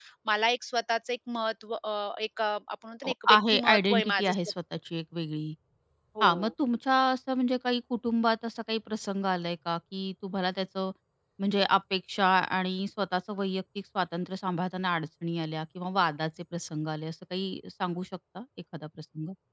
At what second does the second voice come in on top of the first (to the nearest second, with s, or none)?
3 s